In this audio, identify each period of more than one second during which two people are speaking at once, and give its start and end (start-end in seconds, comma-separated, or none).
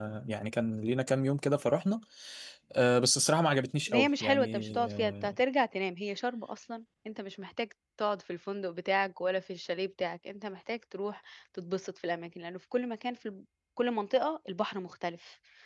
3.9-5.3